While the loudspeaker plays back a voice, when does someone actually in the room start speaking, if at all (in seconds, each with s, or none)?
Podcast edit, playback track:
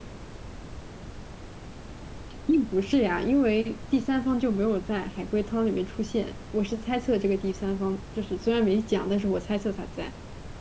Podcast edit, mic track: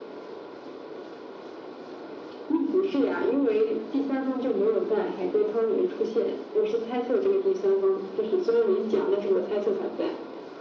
none